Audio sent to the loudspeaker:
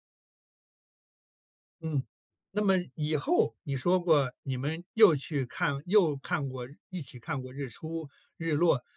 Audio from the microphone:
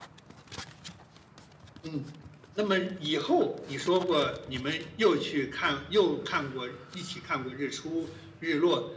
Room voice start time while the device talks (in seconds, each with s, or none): none